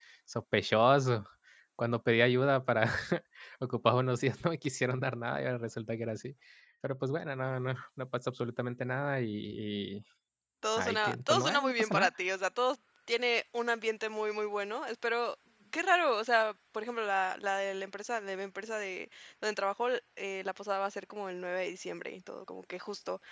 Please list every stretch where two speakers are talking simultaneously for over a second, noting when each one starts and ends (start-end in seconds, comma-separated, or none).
10.8-12.1